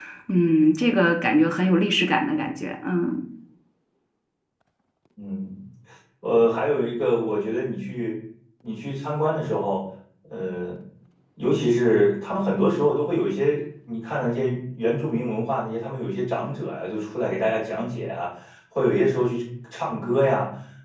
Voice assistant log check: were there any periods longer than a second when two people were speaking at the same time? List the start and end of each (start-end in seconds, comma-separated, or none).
none